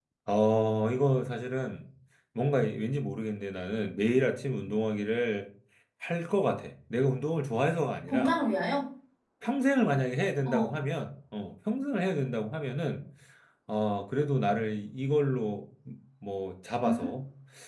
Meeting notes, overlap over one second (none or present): none